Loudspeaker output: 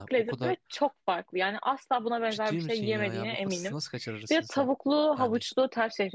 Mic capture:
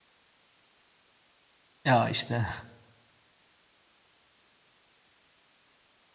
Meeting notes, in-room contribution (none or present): present